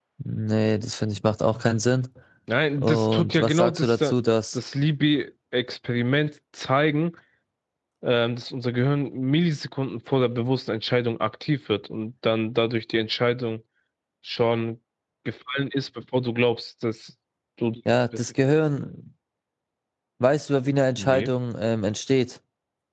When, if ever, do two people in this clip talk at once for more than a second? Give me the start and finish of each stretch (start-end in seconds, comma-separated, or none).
2.8-4.0